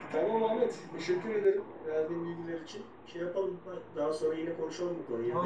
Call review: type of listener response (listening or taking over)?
taking over